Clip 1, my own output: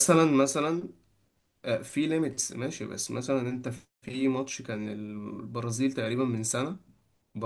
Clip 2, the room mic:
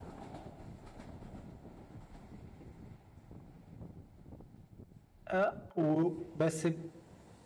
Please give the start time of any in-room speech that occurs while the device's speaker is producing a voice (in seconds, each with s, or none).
5.3 s